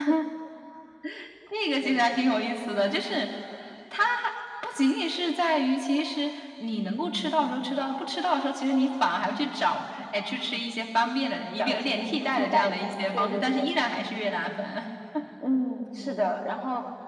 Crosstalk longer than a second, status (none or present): present